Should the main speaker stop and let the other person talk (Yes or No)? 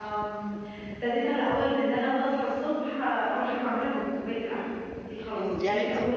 Yes